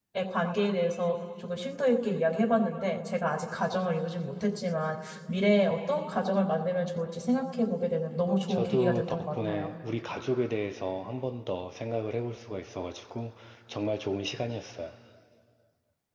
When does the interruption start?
8.5 s

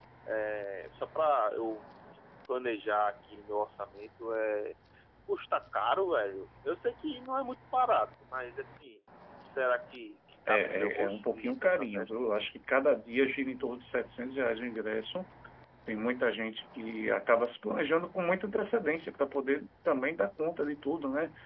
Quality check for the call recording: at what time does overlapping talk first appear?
10.5 s

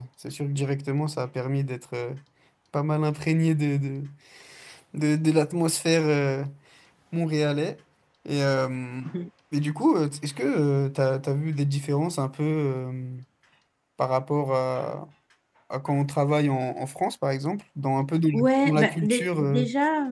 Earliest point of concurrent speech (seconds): 18.3 s

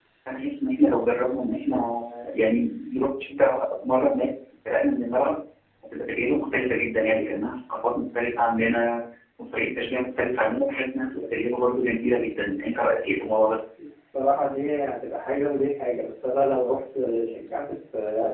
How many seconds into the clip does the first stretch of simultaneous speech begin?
none

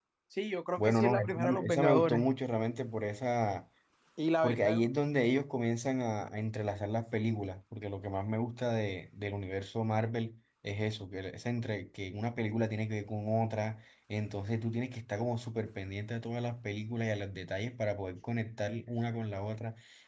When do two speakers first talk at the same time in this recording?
0.8 s

